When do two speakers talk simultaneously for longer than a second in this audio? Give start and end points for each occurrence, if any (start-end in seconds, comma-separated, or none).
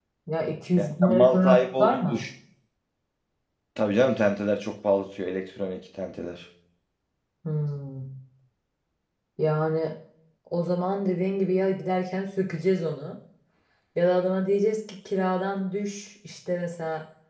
0.8-2.2